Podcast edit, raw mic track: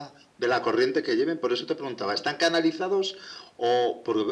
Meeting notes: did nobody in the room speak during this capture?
Yes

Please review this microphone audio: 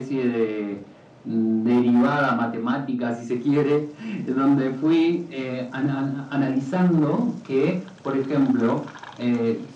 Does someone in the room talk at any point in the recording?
No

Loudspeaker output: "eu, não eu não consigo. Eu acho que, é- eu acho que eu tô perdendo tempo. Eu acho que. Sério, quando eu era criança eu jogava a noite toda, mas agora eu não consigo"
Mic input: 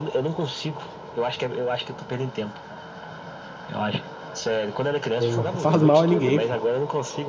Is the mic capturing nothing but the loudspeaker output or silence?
No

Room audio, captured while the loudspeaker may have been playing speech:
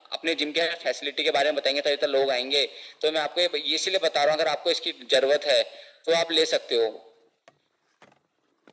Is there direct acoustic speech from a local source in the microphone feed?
No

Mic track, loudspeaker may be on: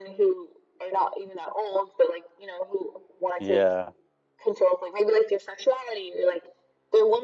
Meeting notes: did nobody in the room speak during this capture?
No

